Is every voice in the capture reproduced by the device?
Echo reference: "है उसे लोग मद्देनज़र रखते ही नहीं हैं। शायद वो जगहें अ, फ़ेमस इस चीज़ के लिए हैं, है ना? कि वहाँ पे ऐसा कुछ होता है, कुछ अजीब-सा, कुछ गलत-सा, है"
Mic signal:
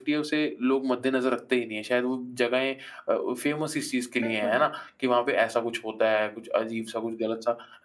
No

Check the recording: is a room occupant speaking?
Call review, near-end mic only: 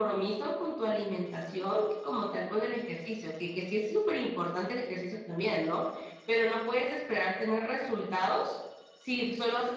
No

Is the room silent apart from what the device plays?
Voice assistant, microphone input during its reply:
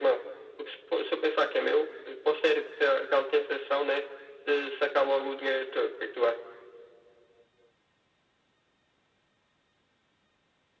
Yes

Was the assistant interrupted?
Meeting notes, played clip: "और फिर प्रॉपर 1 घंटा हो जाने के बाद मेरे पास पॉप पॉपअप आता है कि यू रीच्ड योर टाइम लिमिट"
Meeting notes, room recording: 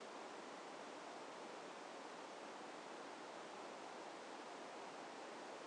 No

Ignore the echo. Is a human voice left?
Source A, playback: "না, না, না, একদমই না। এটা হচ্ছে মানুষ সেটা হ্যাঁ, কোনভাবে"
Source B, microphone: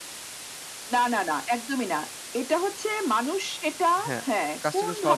Yes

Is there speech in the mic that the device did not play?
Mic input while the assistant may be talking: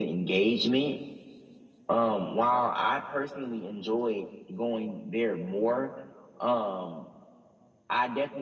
No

